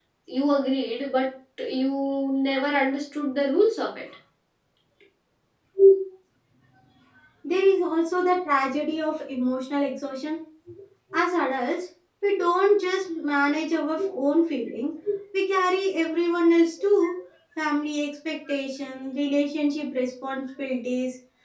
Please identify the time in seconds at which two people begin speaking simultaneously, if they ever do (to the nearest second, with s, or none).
none